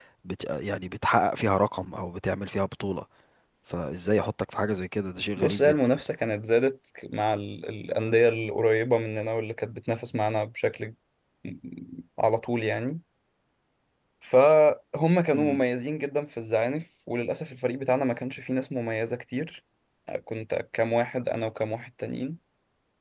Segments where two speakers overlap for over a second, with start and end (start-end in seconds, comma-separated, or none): none